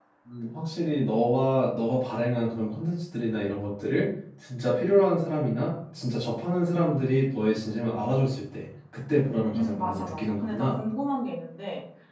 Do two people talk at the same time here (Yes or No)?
Yes